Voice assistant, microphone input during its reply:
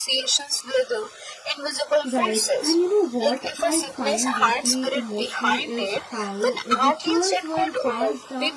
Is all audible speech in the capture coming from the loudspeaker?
No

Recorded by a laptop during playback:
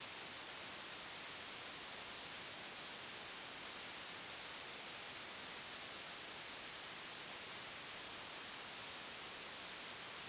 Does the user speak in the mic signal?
No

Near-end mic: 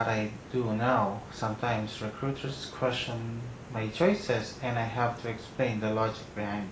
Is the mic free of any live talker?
No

